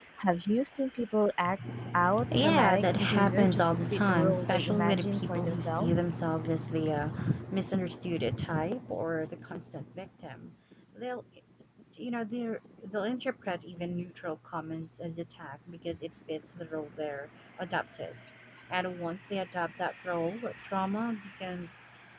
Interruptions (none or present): present